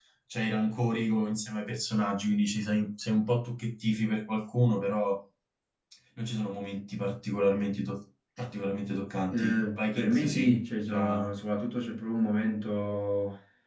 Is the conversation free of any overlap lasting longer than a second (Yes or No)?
No